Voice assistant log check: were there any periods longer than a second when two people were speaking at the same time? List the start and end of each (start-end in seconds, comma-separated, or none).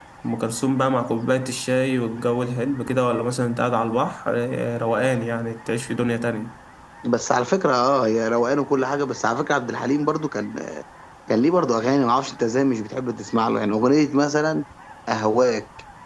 none